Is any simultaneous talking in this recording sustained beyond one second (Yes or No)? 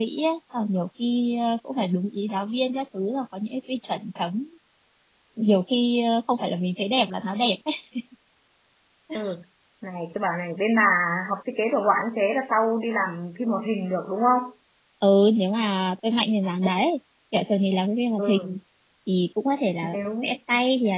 No